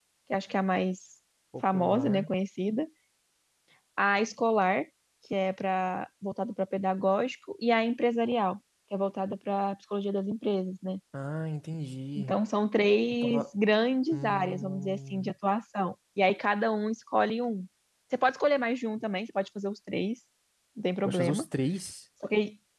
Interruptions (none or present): present